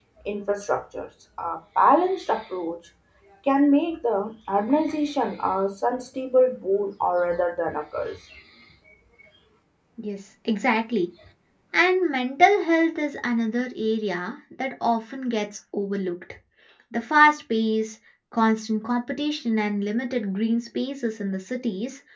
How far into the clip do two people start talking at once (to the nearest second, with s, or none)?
none